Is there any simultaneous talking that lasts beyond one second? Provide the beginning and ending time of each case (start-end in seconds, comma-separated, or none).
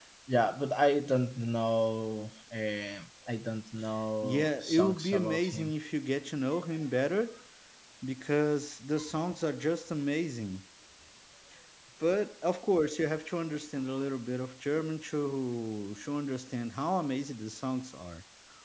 4.2-5.7